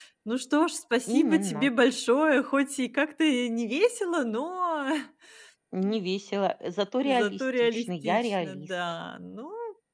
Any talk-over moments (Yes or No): Yes